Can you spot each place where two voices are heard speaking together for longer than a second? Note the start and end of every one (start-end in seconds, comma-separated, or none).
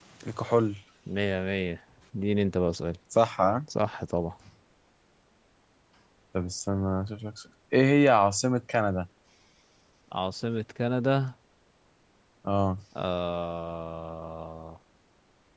none